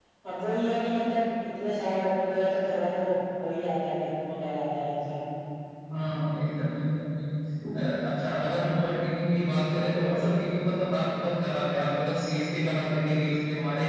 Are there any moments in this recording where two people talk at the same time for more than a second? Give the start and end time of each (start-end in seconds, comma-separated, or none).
none